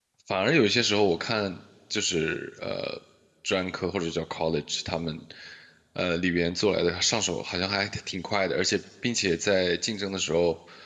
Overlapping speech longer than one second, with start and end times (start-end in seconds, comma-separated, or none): none